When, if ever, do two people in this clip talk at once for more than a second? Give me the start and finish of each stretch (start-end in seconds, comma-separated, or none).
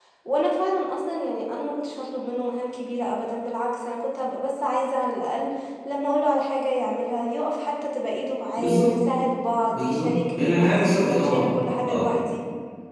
9.7-11.5